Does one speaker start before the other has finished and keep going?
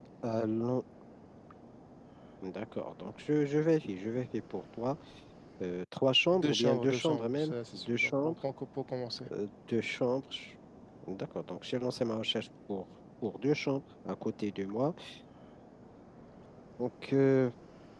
Yes, from 6.3 s

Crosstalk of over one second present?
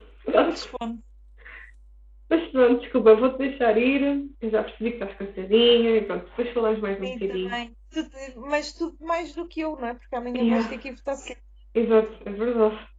No

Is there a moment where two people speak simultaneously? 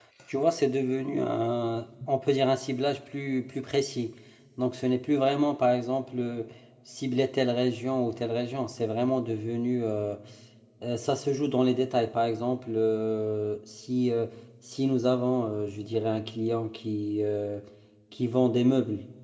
No

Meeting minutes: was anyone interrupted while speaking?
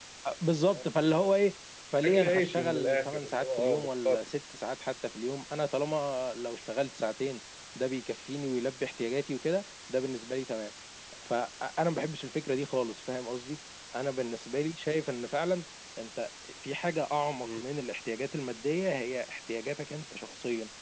Yes, from 2.0 s

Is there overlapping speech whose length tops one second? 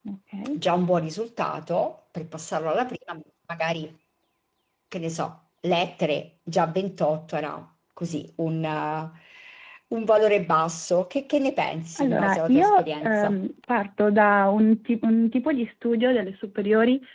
Yes, from 12.0 s

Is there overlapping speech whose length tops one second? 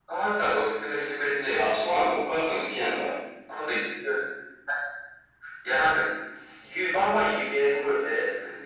No

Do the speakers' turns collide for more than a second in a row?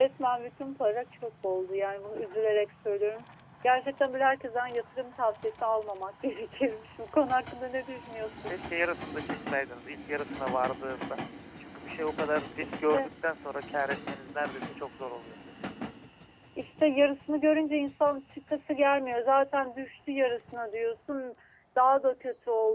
No

